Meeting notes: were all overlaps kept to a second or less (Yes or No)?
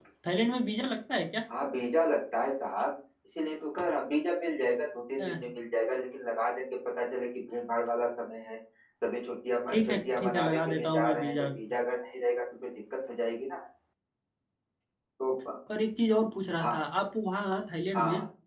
No